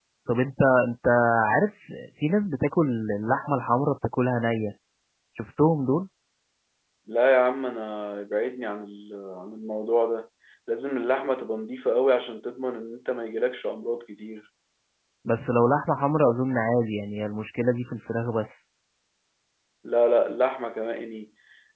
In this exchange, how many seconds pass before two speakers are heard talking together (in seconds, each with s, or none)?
none